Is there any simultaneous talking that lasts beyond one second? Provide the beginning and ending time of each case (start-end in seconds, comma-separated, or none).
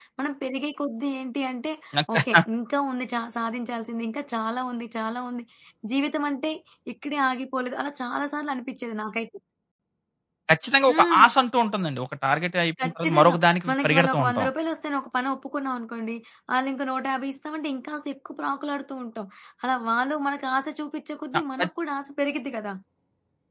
12.8-14.5